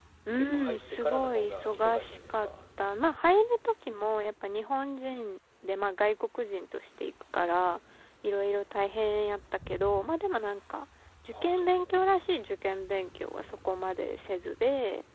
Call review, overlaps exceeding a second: present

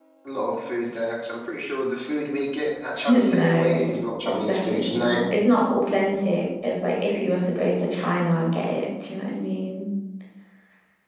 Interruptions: present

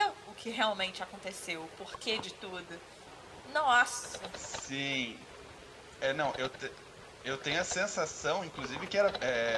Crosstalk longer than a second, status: none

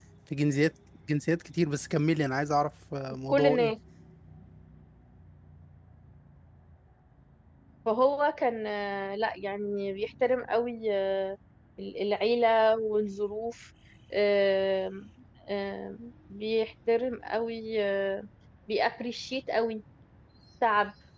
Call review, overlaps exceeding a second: none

